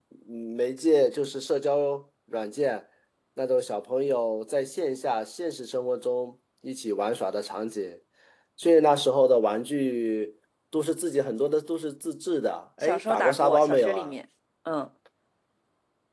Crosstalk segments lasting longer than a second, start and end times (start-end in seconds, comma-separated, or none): 12.8-14.1